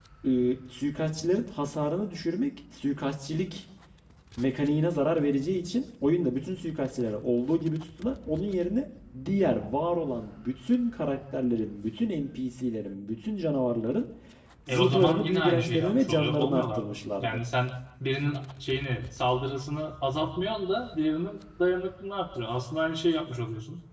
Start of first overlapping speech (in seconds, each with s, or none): 14.7 s